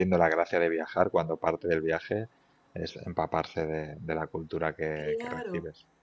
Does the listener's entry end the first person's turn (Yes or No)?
Yes